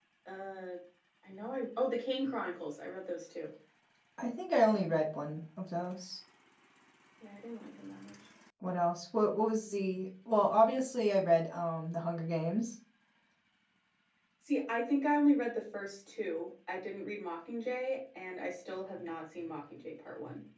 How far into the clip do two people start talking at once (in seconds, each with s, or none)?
none